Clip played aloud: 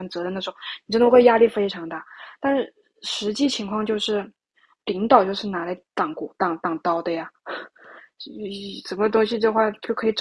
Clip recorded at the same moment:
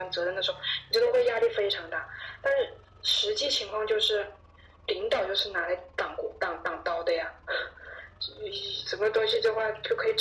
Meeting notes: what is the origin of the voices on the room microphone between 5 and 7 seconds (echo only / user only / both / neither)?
echo only